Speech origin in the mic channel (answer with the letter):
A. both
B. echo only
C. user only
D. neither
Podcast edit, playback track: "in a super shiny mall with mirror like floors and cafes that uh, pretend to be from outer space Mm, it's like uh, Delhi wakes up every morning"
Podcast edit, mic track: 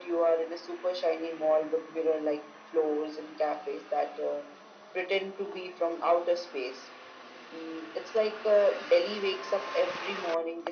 B